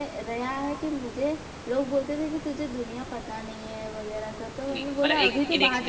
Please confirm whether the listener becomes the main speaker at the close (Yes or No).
Yes